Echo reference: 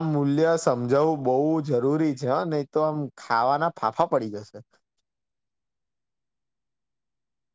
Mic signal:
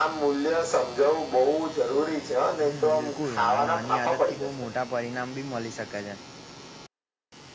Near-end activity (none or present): present